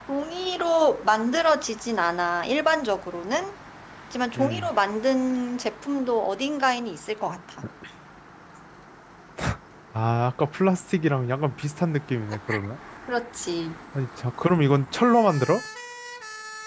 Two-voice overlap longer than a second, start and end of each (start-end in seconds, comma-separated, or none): none